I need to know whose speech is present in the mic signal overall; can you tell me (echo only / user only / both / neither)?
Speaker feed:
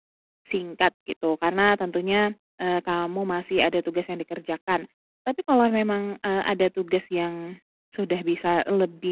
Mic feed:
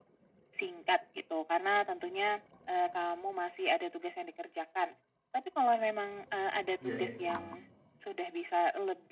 both